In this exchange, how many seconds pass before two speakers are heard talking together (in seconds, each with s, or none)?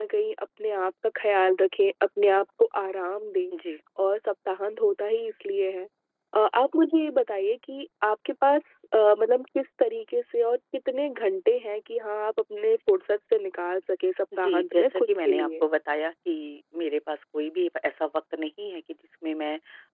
14.3 s